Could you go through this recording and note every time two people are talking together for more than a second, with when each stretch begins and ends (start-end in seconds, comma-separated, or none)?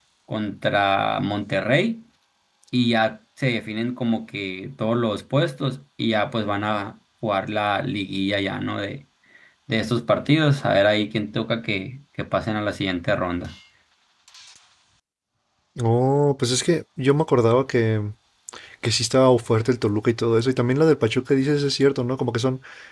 none